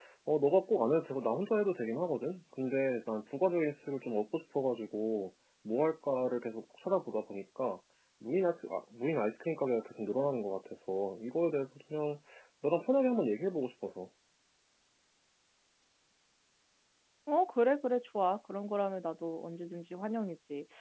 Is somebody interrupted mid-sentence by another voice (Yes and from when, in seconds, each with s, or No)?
No